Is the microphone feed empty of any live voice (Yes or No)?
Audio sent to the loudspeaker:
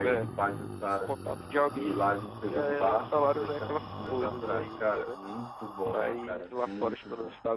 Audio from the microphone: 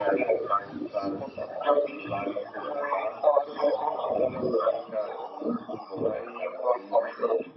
Yes